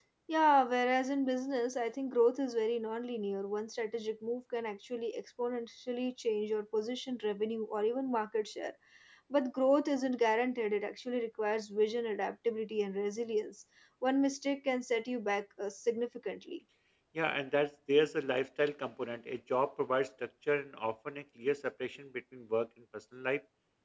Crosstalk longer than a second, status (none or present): none